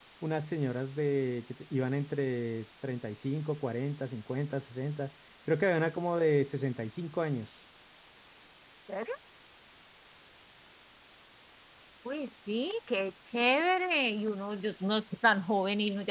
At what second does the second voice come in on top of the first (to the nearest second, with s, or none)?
none